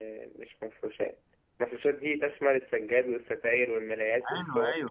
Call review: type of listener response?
taking over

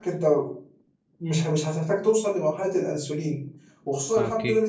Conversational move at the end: listening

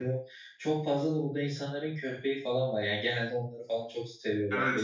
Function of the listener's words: taking over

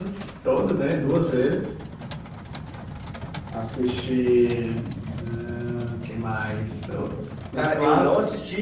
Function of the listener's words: taking over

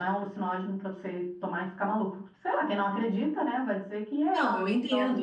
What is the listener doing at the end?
taking over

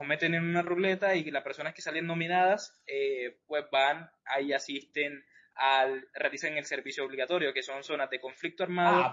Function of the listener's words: taking over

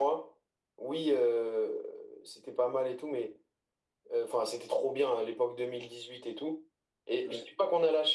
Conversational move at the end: listening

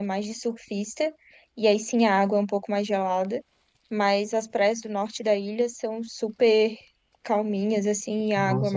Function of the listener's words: taking over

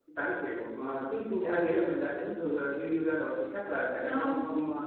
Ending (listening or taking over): listening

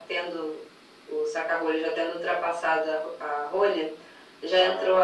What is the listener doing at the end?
listening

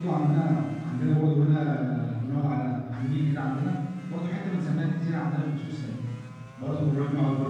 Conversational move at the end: listening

